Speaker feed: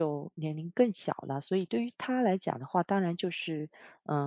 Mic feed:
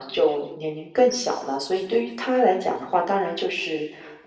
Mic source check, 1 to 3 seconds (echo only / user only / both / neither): echo only